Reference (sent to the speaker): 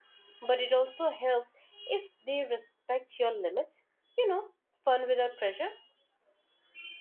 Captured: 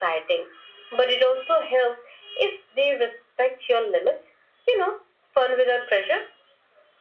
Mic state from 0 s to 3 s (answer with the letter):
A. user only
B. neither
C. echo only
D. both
C